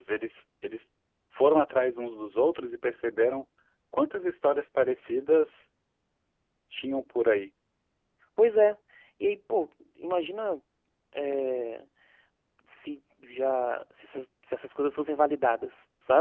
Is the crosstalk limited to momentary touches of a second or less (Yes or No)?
Yes